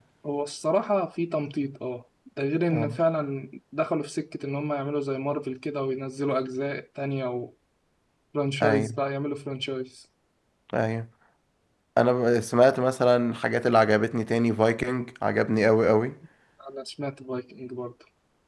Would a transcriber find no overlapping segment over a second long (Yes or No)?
Yes